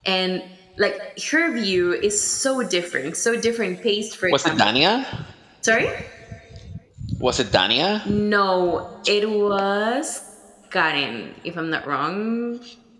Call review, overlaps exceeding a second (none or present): none